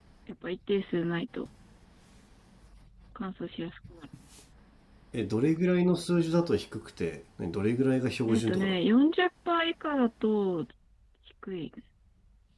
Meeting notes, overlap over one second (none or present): none